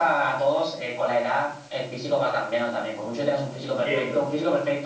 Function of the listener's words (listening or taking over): listening